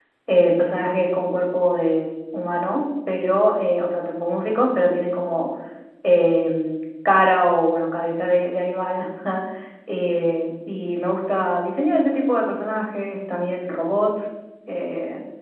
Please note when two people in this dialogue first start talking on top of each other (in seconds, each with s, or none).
none